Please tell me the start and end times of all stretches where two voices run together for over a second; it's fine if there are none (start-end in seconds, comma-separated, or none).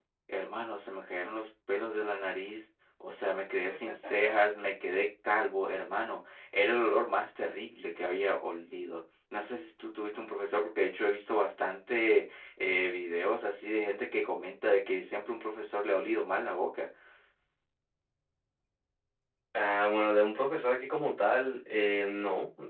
none